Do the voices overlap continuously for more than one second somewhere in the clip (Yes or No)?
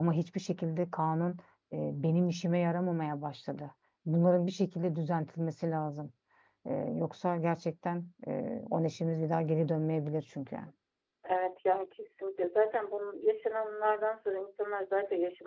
No